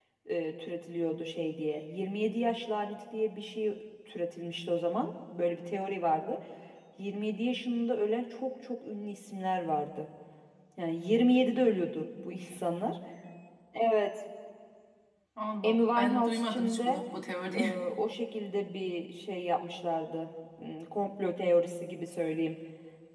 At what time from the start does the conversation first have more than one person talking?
15.6 s

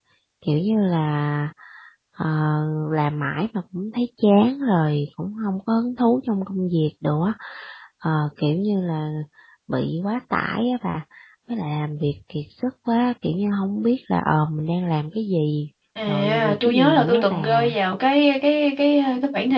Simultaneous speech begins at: 16.0 s

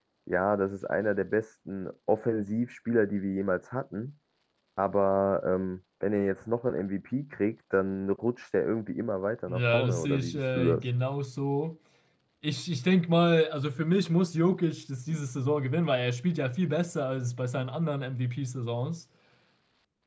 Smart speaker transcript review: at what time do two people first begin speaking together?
9.5 s

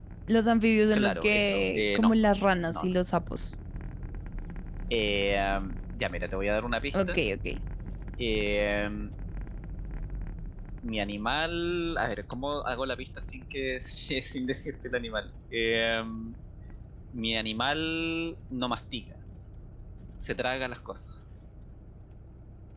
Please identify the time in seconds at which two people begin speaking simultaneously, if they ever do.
0.9 s

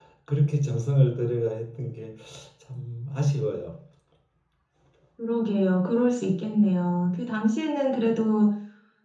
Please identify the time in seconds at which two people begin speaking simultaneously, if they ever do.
none

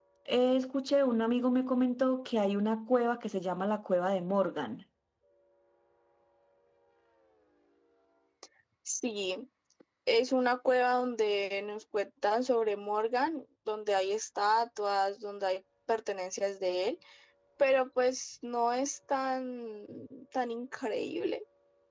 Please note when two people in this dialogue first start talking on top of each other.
none

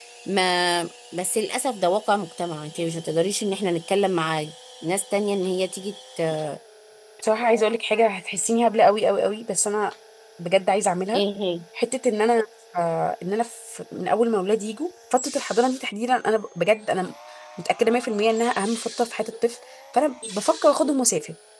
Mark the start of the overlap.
none

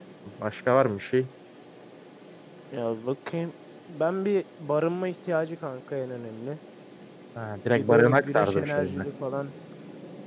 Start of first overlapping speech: 7.7 s

